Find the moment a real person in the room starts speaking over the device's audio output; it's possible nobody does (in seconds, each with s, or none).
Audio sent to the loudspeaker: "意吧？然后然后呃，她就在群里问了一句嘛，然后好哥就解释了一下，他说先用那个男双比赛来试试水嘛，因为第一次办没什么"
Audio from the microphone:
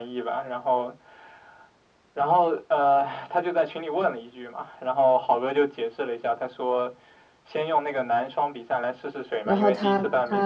9.4 s